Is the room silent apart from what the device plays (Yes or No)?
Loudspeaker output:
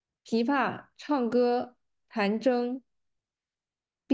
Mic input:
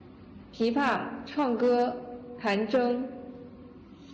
Yes